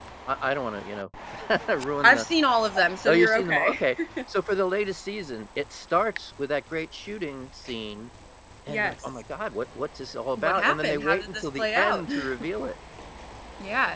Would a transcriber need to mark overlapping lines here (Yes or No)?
Yes